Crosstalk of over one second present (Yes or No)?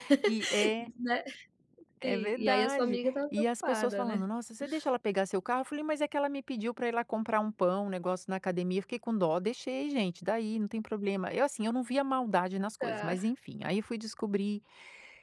Yes